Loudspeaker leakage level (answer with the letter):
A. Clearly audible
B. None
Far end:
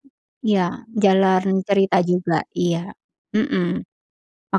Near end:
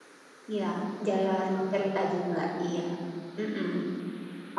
A